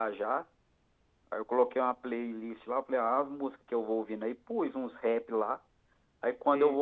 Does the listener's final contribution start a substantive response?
No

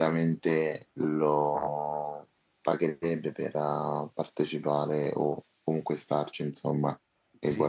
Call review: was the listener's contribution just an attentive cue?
No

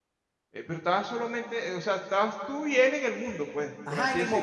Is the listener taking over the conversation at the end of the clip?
Yes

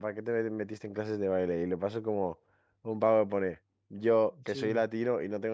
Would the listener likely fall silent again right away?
Yes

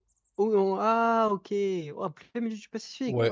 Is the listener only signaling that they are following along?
No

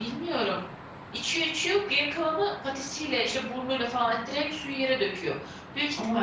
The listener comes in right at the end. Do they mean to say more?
No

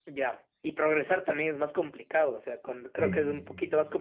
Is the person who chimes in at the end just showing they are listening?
Yes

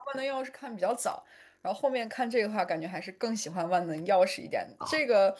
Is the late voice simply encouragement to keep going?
Yes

